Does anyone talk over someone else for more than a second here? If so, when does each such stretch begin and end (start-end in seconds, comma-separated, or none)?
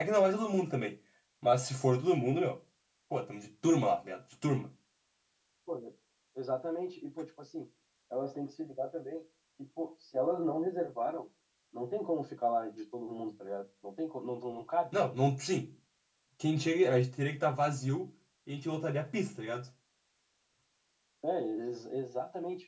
none